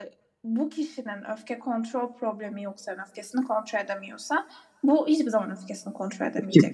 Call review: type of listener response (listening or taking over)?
taking over